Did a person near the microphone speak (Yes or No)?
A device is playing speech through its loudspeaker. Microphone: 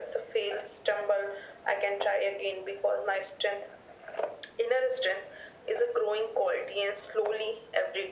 No